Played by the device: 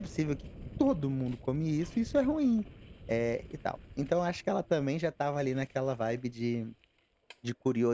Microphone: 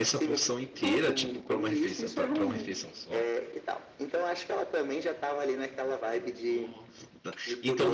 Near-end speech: present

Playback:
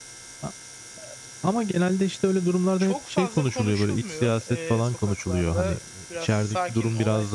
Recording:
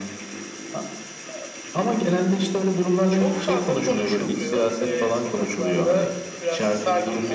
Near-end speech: none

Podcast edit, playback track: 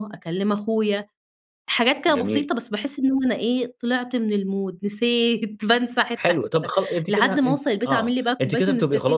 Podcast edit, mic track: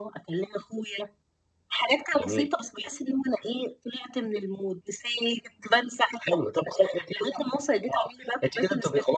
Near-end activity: none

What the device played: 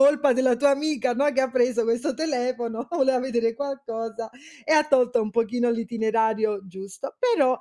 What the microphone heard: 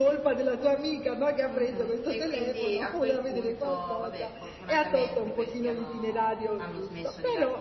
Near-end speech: present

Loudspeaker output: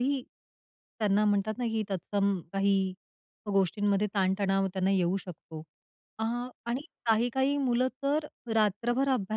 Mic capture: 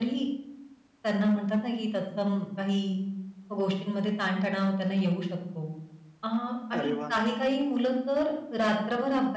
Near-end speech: present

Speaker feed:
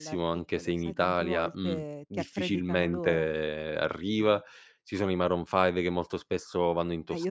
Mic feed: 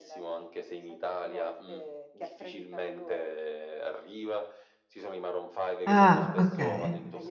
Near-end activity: present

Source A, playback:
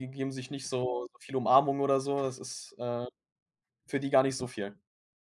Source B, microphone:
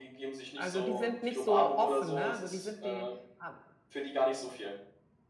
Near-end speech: present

